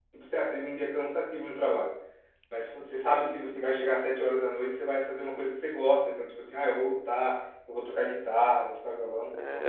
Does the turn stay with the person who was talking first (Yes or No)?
No